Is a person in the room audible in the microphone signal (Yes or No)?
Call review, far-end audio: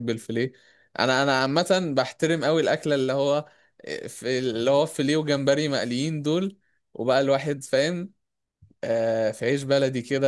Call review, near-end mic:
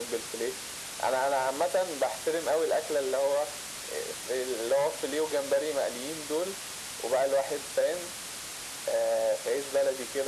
No